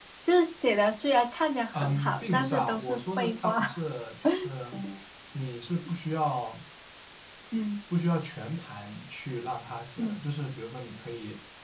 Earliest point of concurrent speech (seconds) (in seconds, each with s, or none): 1.7 s